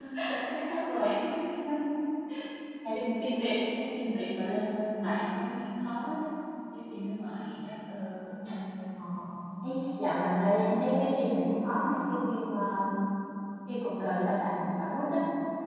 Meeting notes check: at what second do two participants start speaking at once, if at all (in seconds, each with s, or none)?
none